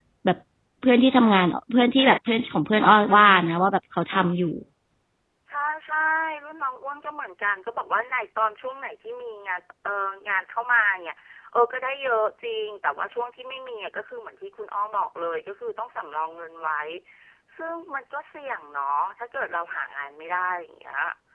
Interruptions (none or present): none